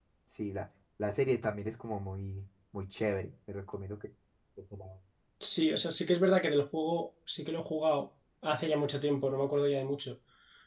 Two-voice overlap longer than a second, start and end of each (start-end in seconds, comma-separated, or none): none